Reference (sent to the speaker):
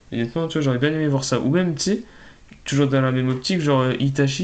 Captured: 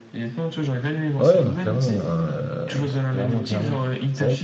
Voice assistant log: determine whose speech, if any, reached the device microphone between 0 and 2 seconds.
both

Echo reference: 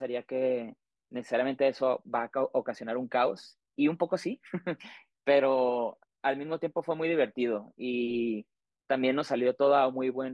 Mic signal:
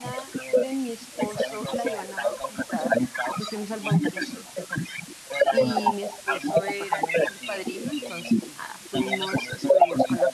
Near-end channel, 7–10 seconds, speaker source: both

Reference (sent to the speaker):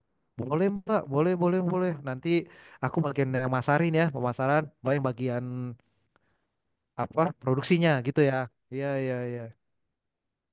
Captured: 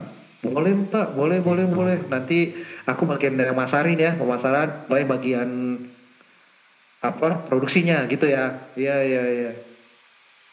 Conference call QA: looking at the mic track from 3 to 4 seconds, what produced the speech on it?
echo only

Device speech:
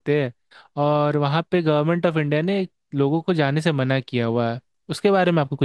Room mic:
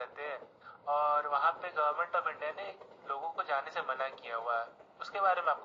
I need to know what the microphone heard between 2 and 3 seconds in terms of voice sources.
echo only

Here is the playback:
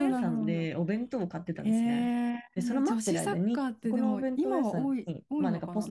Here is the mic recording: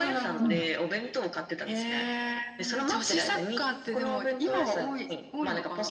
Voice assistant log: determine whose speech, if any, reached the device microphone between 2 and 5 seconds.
echo only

